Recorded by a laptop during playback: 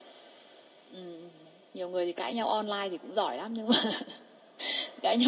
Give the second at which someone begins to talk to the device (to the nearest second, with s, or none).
none